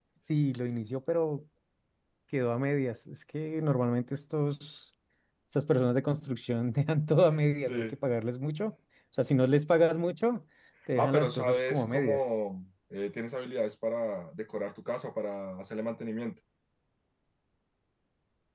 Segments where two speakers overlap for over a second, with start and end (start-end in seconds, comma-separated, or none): 11.0-12.2